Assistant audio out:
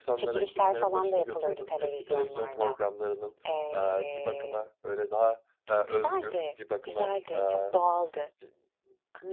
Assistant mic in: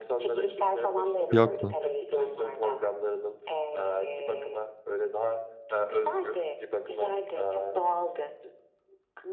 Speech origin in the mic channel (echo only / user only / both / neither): both